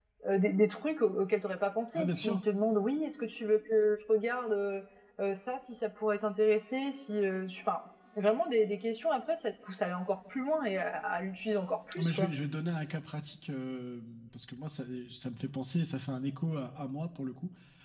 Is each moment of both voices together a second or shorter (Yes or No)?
Yes